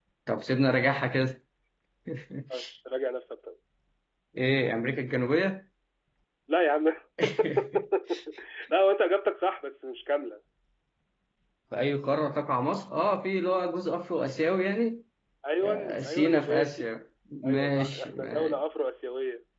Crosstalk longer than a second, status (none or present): present